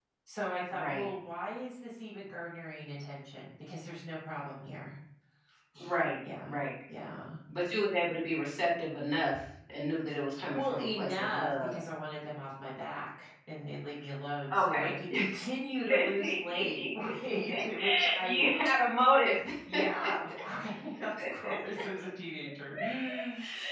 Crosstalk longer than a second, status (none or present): present